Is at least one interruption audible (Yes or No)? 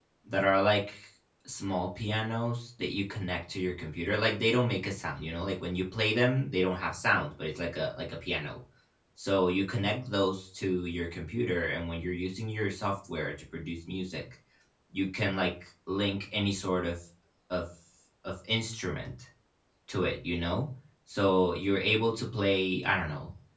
No